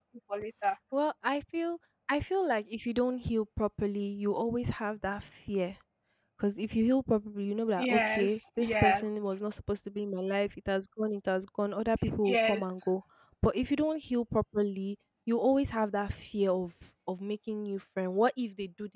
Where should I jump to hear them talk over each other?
7.8 s

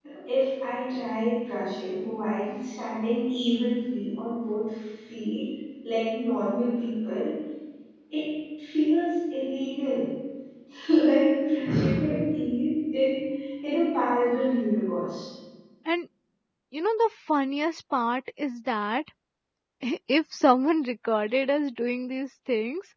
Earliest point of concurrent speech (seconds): none

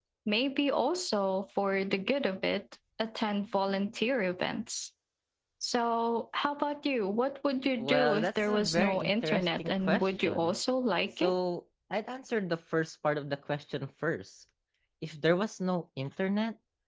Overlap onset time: 7.8 s

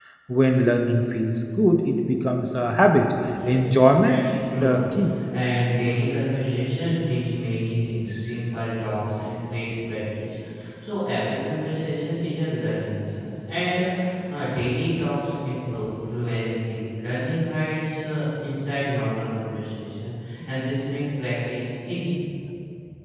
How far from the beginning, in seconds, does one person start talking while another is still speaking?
3.3 s

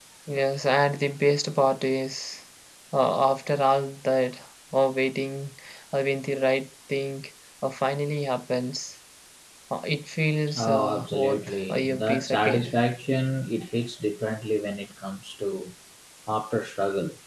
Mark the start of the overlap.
10.5 s

